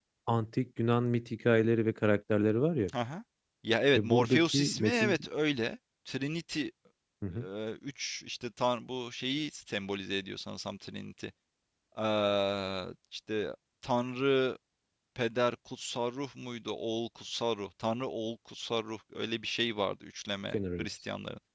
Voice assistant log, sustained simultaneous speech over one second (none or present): present